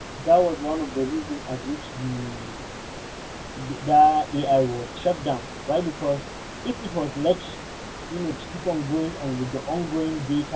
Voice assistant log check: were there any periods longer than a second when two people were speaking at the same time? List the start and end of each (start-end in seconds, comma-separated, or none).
none